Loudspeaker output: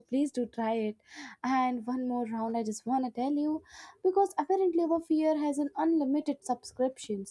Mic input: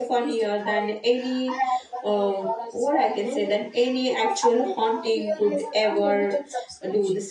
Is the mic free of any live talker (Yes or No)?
No